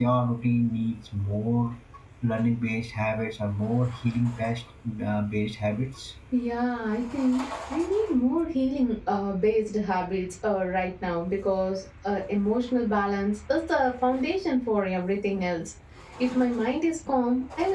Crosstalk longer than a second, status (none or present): none